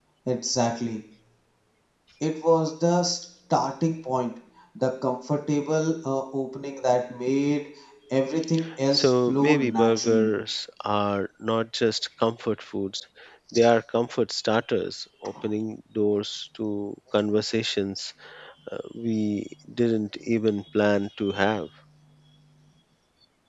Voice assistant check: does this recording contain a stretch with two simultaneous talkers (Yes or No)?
Yes